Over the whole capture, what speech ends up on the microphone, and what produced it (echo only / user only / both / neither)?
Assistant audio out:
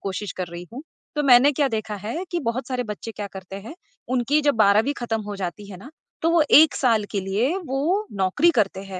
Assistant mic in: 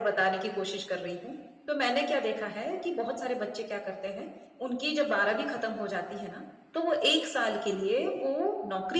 echo only